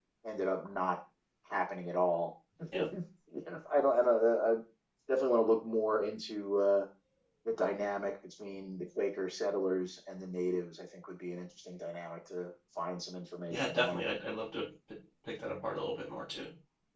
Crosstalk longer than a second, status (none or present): none